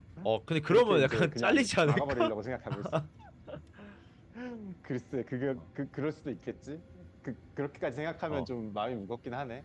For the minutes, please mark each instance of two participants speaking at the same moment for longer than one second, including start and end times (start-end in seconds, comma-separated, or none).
0.7-2.3